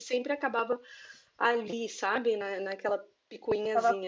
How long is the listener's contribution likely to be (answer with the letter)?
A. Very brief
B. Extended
B